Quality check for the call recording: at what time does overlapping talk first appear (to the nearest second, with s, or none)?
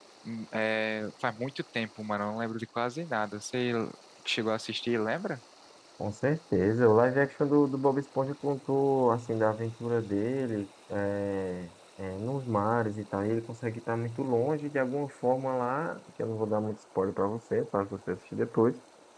none